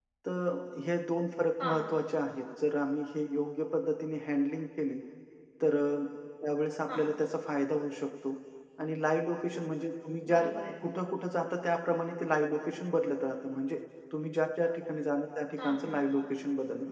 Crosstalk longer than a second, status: none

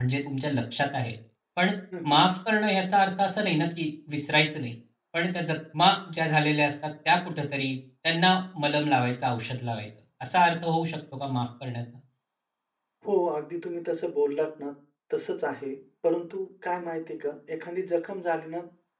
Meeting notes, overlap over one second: none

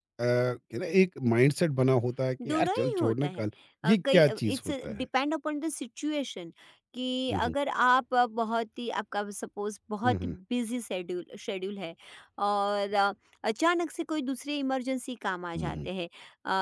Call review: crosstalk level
present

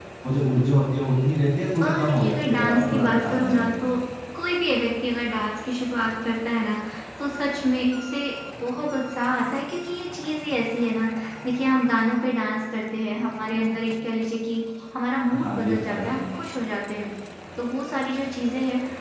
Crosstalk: present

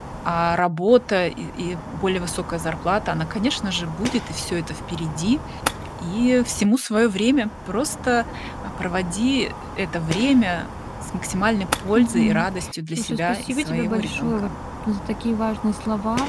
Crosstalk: present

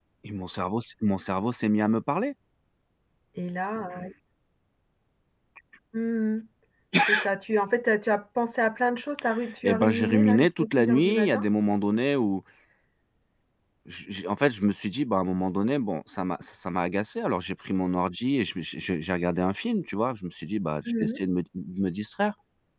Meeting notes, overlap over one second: present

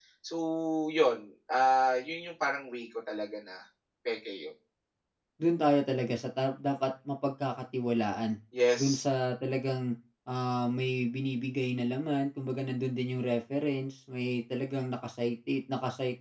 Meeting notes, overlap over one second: none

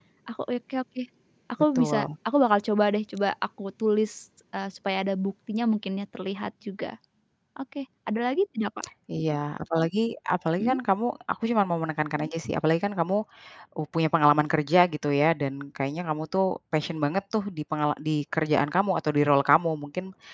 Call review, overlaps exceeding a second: none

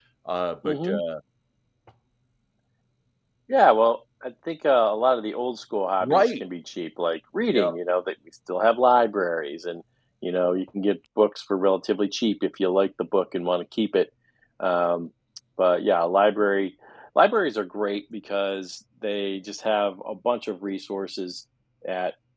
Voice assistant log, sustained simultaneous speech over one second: none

